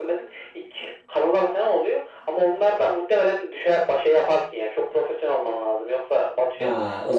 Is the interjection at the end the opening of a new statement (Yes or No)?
Yes